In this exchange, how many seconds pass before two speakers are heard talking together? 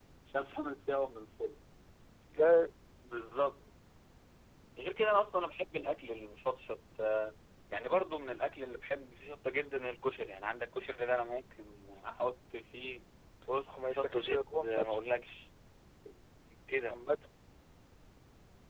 14 s

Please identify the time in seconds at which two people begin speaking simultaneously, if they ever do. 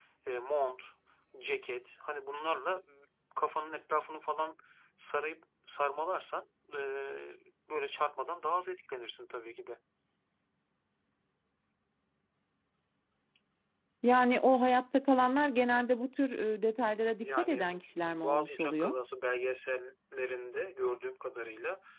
17 s

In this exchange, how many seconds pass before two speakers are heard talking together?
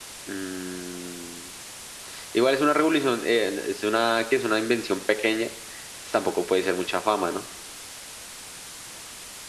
none

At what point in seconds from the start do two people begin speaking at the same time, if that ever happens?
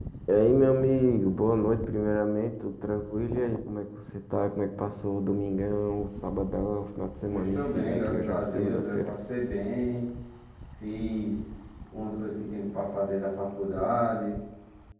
7 s

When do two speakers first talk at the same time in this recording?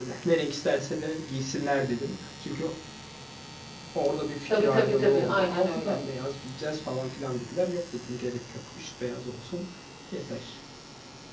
5 s

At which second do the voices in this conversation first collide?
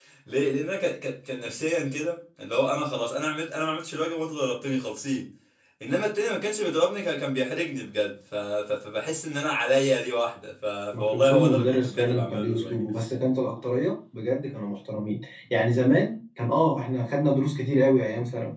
11 s

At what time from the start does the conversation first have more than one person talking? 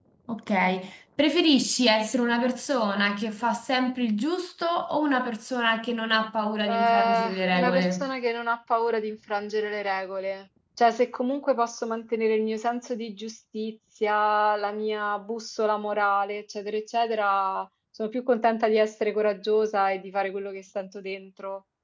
7 s

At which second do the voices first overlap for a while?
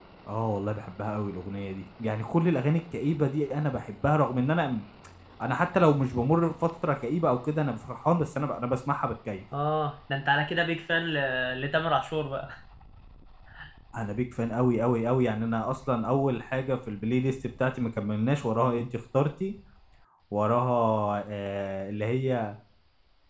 none

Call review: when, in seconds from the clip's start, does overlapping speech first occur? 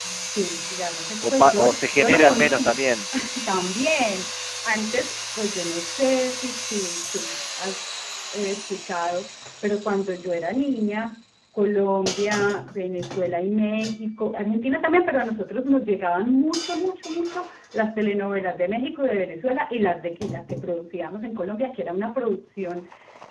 1 s

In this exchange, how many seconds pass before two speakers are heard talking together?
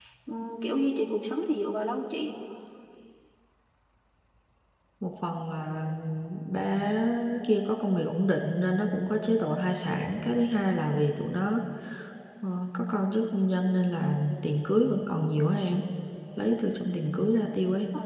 none

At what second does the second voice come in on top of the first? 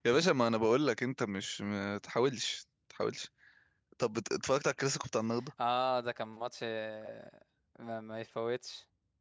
none

